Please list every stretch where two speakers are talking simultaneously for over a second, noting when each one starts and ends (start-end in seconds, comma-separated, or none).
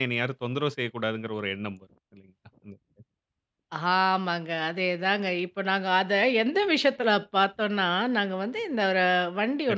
none